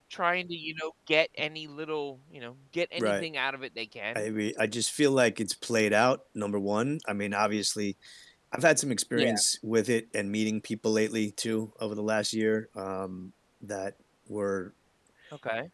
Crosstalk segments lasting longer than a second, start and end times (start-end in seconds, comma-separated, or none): none